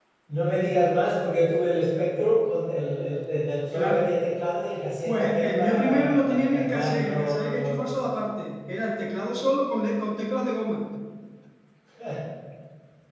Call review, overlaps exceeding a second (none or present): present